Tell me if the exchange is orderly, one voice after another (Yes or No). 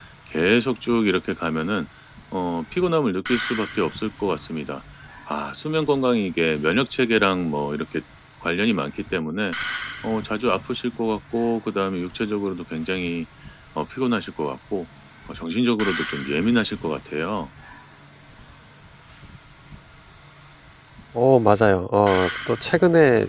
Yes